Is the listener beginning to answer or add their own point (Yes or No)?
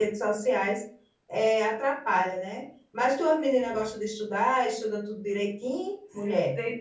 Yes